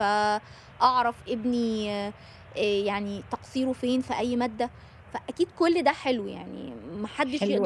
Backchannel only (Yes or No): No